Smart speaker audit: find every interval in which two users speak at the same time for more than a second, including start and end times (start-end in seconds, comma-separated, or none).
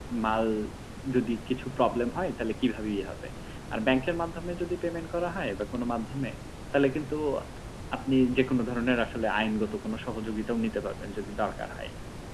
none